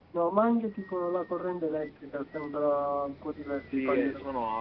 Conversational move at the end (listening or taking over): taking over